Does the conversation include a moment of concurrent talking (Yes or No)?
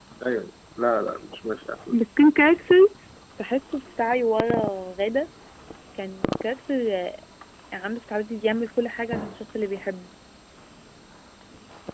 No